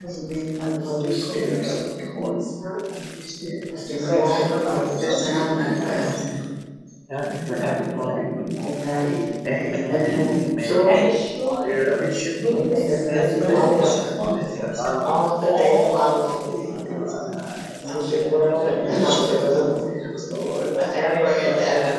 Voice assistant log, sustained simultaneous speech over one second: present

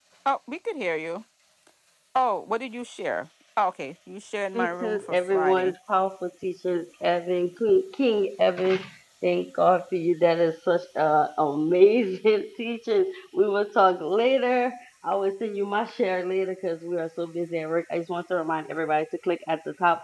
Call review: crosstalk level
present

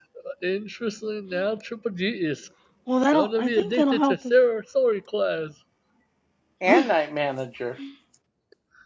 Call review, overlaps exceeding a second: present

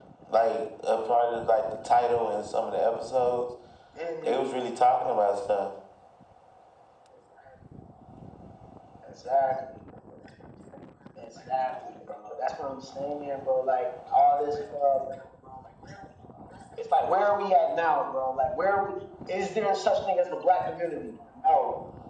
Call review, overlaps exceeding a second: none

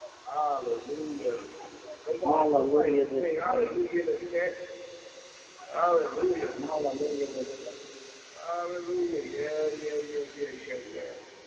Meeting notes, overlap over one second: present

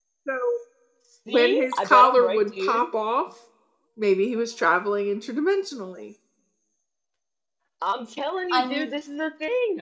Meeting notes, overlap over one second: present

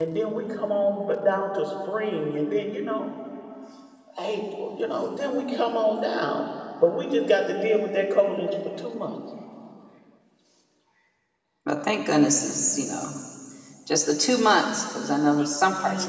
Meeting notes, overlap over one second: none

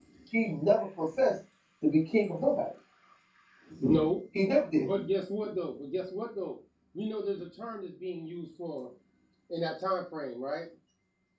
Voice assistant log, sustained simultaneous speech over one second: none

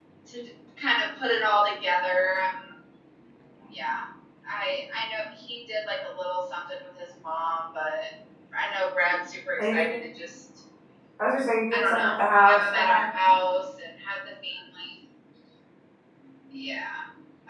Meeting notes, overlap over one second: present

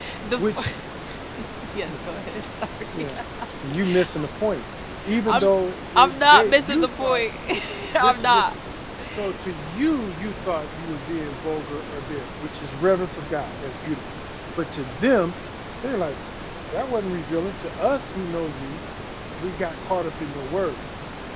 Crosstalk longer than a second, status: present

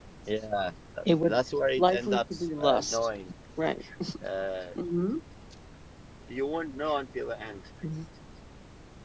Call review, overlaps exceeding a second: present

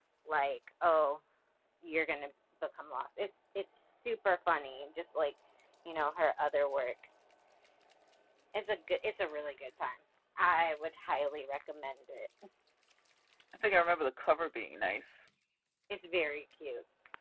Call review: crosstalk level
none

